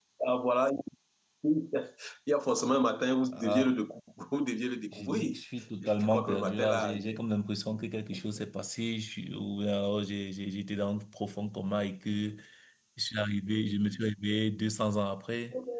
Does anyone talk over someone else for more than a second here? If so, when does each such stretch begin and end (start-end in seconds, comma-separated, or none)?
5.8-7.2